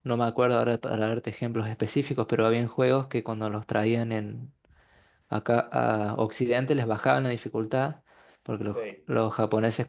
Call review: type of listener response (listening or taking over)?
listening